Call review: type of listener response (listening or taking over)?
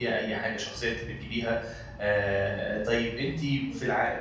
listening